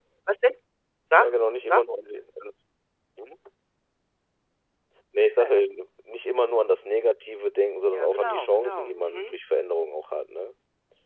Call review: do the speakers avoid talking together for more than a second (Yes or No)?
No